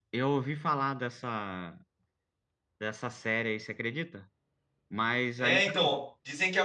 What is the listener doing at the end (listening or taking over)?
taking over